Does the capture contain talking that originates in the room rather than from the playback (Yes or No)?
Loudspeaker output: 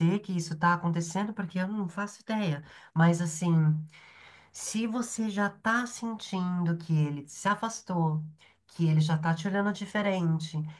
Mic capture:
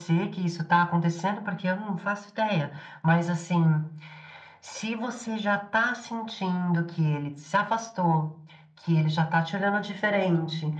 No